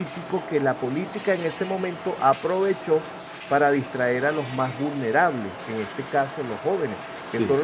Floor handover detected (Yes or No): No